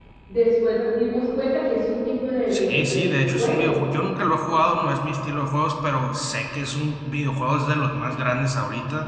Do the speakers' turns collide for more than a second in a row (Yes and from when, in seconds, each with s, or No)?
Yes, from 2.5 s